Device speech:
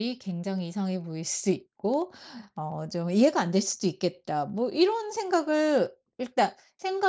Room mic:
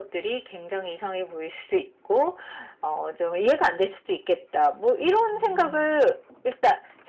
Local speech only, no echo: 음.

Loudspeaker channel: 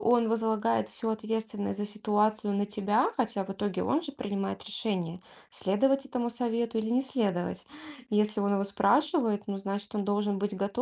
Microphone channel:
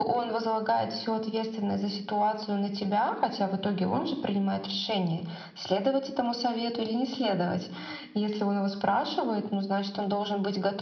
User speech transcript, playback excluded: none

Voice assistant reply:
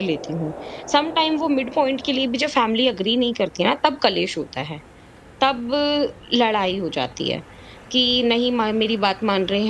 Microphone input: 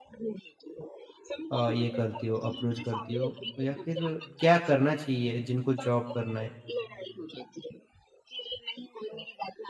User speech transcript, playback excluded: अ, ये करती हो, अप्रोच करती हो? या फिर क्या करना चाहिए जिनको जॉब करना है?

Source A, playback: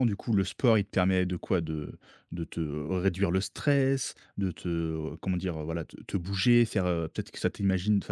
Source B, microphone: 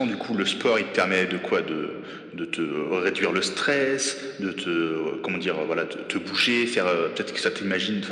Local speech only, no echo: none

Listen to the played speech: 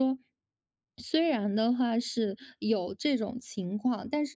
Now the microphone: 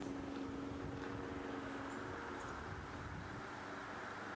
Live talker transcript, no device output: none

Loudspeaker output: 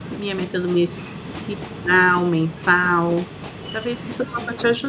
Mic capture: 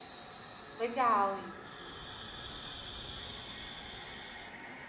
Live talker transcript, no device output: legal isso,

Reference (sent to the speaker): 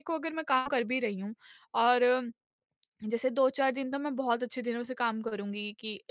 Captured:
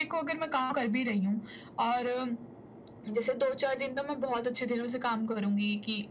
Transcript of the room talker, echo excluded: none

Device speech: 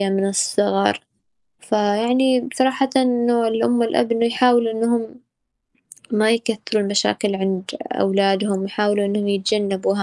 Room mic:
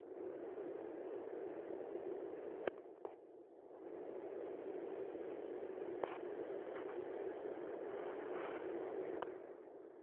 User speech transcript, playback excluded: none

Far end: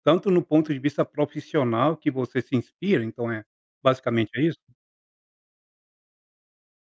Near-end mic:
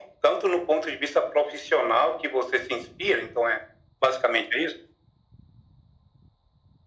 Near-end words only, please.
none

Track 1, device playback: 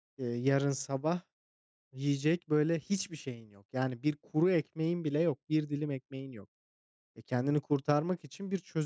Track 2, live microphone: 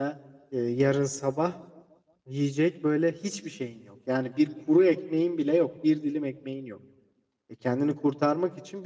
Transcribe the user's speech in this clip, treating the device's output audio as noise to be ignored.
none

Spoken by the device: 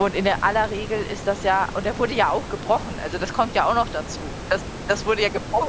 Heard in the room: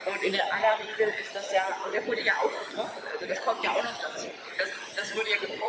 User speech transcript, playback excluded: none

